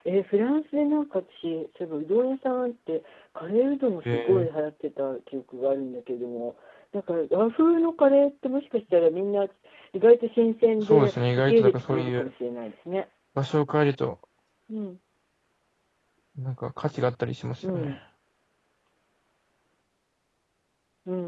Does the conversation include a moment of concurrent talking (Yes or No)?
Yes